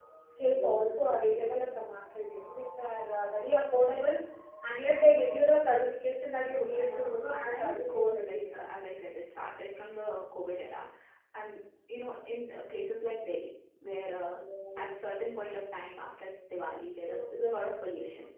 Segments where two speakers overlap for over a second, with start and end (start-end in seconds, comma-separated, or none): 6.4-8.5